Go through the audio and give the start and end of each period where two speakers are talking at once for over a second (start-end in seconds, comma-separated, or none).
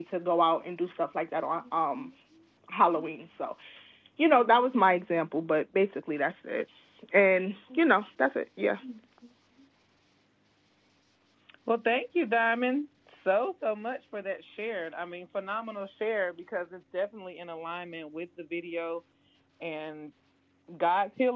none